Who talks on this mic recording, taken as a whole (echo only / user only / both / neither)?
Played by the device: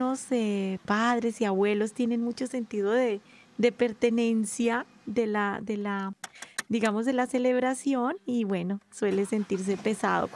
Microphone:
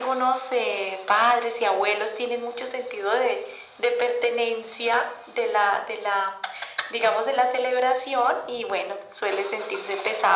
echo only